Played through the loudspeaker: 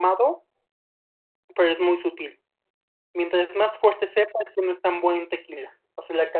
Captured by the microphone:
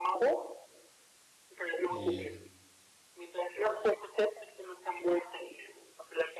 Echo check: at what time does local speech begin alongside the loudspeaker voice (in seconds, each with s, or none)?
1.9 s